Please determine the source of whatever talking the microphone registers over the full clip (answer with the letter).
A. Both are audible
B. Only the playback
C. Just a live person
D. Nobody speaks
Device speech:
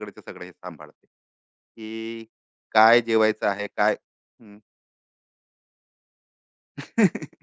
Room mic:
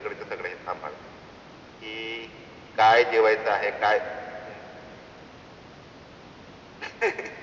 B